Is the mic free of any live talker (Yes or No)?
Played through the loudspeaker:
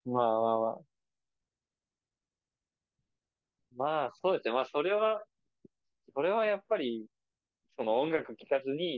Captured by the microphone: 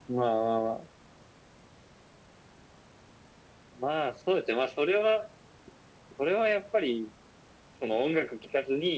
Yes